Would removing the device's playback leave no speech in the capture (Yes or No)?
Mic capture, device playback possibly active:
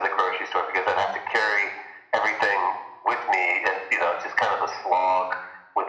Yes